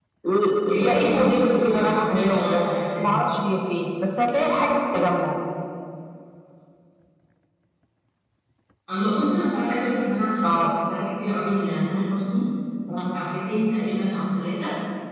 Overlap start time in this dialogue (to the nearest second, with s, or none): 1 s